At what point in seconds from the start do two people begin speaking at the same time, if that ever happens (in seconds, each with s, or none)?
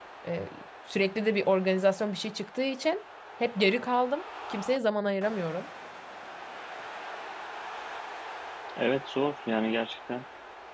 none